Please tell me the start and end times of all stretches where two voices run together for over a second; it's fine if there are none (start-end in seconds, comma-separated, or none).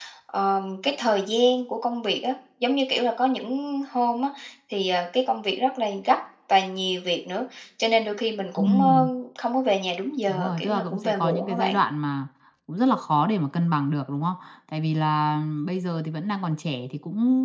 10.3-11.8